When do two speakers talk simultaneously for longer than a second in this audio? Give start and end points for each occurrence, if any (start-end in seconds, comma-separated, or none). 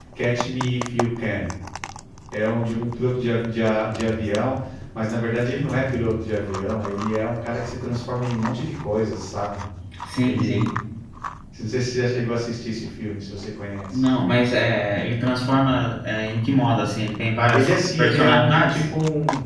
17.5-18.8